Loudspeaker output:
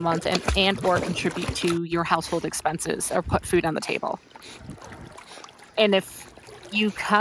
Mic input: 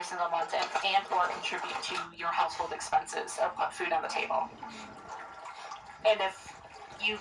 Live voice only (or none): none